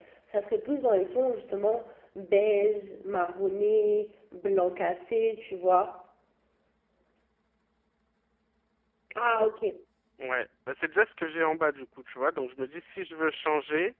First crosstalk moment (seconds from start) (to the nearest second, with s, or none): none